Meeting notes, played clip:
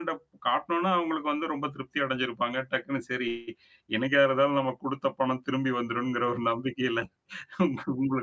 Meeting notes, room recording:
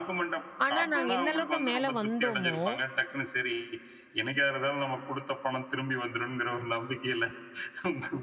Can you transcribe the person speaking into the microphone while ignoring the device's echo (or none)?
ஆனா, நாங்க எந்த அளவுக்கு மேல வந்தோமோ,